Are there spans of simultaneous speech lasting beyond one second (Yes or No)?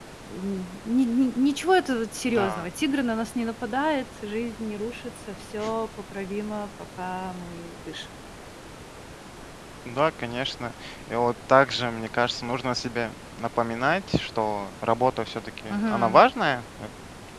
No